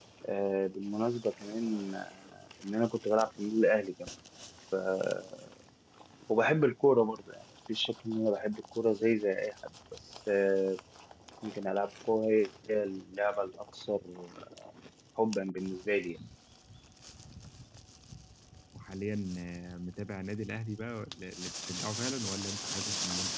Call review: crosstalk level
none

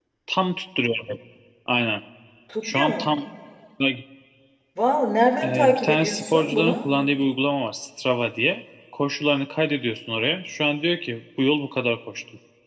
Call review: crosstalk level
present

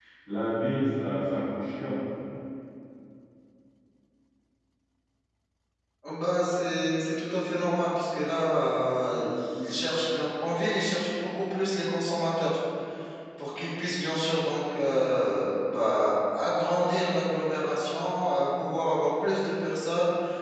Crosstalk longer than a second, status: none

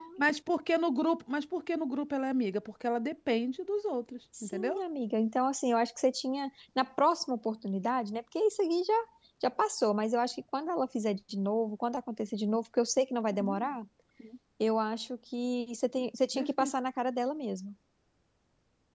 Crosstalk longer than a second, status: none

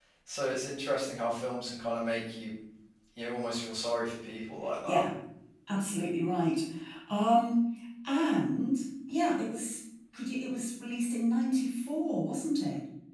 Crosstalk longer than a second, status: none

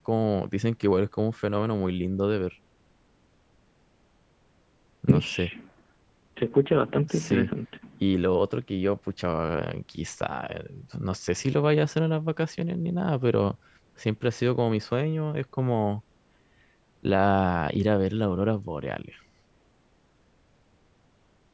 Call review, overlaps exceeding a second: none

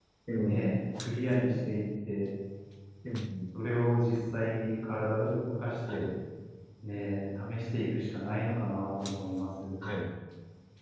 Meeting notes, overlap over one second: none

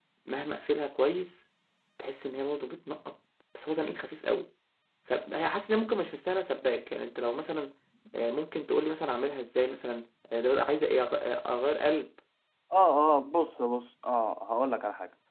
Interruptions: none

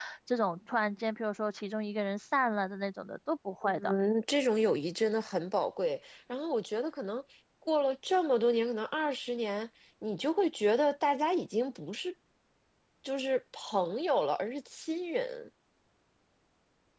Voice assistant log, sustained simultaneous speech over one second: none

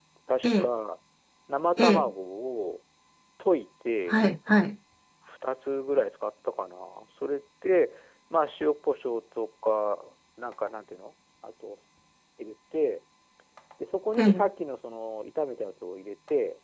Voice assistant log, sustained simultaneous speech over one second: none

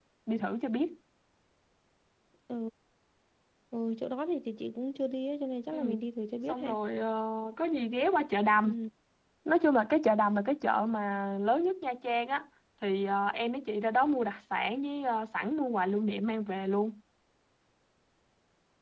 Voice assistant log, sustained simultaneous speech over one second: none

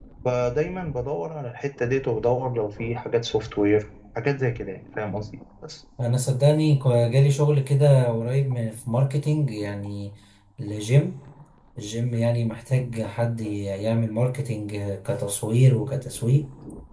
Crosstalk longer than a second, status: none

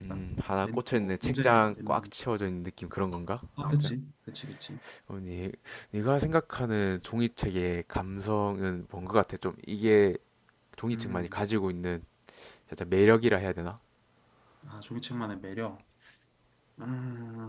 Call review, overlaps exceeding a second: present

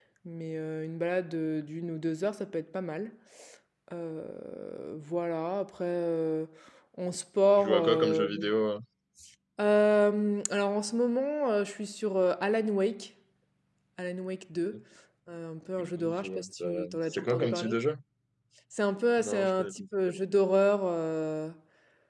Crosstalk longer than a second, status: present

